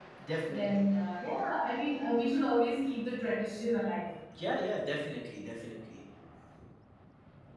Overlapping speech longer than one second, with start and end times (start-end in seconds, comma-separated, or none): none